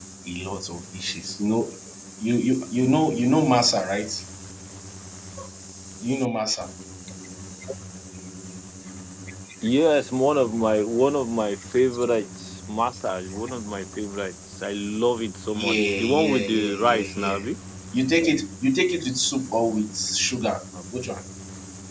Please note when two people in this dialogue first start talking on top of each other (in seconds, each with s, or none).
15.5 s